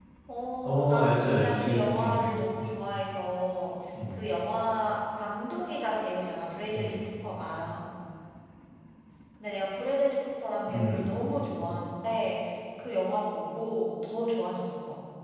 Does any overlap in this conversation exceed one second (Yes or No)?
Yes